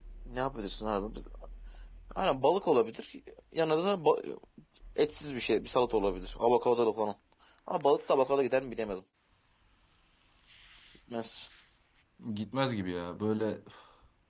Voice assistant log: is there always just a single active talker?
Yes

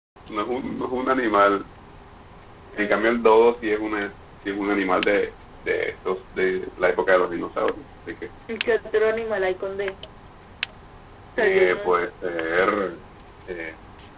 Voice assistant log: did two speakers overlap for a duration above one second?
No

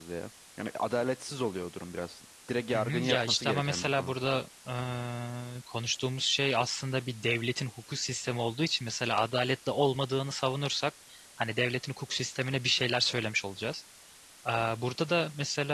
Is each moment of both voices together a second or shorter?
No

